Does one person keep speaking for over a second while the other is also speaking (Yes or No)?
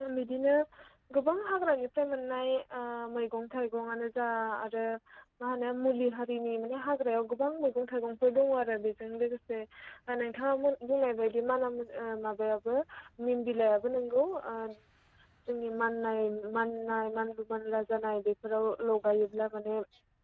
No